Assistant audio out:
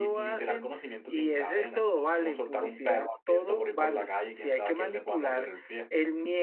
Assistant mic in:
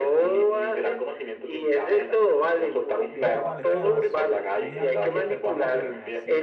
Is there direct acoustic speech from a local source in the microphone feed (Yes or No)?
Yes